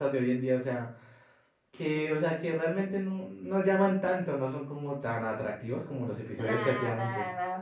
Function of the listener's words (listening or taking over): taking over